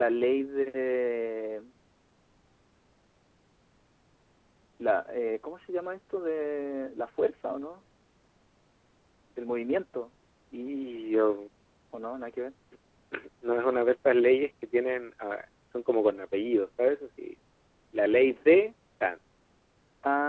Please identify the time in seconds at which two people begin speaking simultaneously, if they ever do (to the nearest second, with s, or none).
none